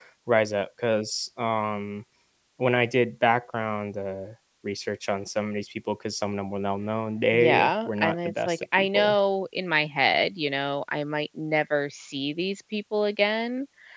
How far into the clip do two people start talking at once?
7.3 s

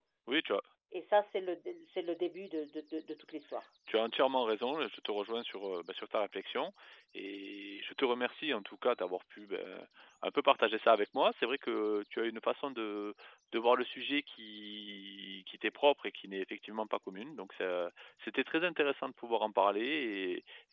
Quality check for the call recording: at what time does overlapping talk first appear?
none

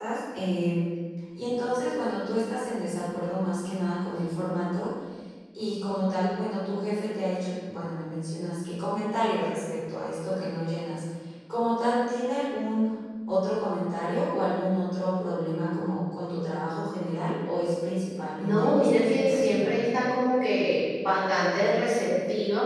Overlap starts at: 18.4 s

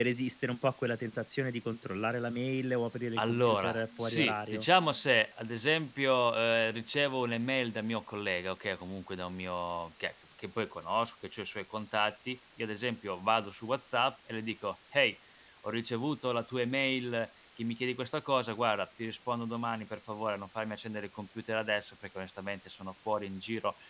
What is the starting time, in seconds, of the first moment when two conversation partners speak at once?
3.2 s

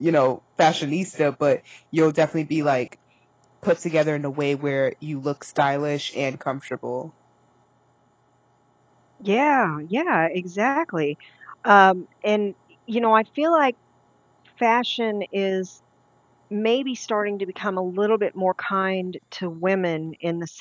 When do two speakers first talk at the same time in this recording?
none

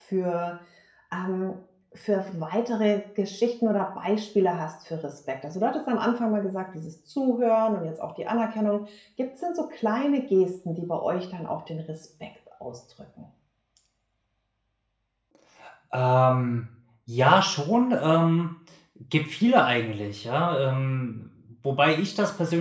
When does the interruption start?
none

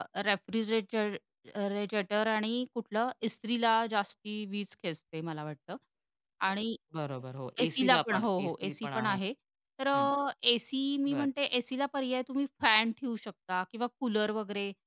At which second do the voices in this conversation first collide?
7.6 s

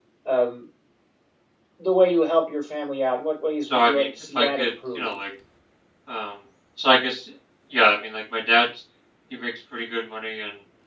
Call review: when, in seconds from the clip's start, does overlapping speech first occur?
3.6 s

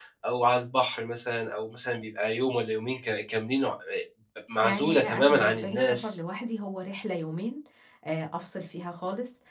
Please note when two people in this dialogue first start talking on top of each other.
4.6 s

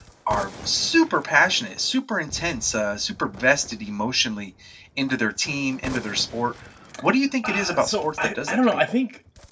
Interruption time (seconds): 7.4 s

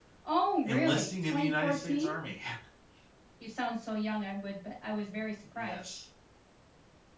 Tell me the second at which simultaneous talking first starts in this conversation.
0.6 s

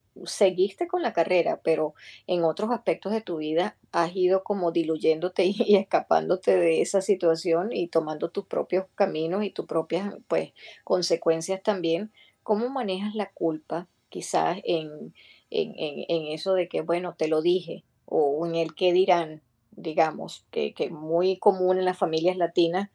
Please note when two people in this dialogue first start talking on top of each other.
none

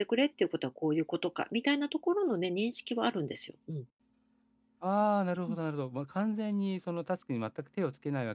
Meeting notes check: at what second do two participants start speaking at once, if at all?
none

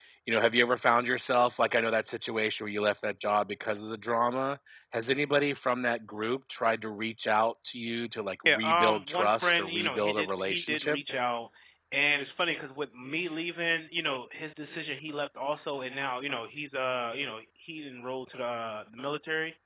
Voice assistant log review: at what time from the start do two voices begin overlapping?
8.5 s

